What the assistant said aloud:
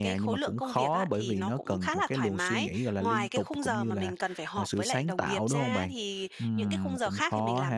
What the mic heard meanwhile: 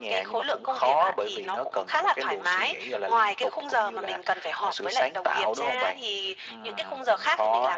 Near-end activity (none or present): none